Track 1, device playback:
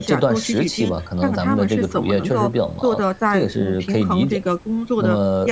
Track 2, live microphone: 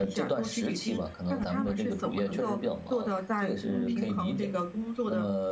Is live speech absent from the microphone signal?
No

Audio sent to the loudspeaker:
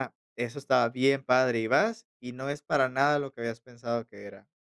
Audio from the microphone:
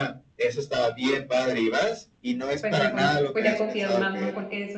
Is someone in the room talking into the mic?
Yes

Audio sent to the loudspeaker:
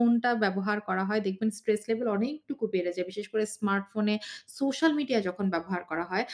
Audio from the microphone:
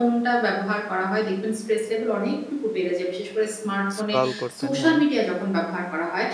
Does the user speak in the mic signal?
Yes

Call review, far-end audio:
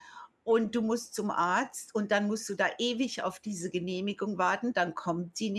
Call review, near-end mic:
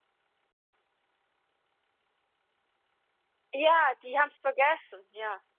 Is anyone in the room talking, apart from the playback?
Yes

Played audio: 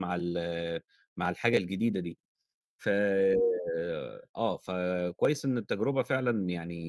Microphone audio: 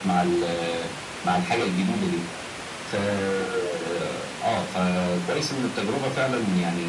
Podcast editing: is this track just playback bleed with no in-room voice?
Yes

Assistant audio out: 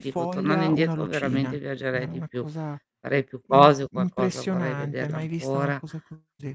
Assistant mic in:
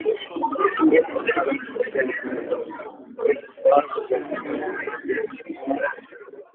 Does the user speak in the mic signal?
Yes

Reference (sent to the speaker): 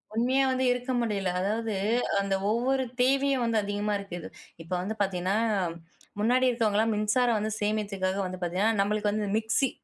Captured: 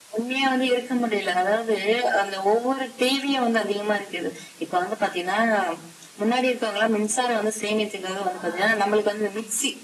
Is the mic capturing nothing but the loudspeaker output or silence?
No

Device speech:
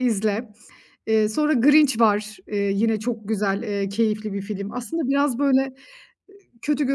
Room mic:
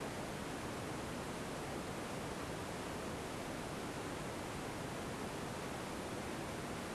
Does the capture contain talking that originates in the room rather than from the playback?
No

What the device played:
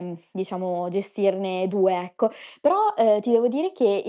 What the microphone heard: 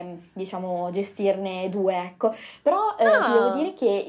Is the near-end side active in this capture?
Yes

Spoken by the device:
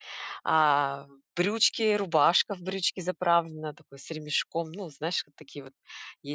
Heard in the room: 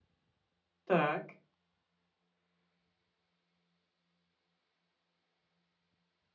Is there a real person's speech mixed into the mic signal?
Yes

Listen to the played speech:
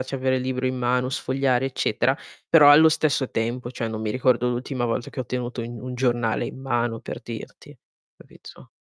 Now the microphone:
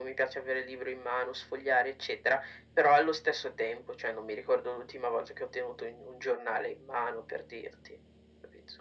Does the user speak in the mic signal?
No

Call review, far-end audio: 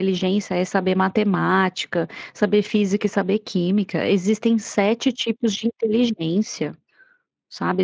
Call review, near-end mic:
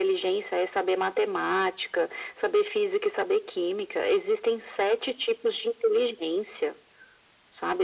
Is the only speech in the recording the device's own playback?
Yes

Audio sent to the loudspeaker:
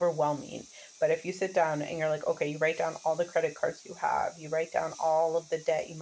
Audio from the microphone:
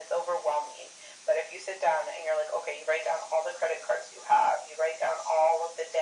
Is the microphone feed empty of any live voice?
Yes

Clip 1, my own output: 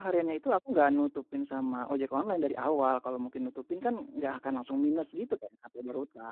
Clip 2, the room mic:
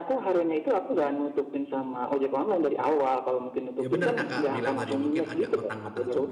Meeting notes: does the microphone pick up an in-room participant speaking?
Yes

